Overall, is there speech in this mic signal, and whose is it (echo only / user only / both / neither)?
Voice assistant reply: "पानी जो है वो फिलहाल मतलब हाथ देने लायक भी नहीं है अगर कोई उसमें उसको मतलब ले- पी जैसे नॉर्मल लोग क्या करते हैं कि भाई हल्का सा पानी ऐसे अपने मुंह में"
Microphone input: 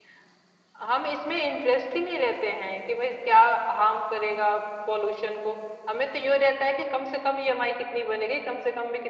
user only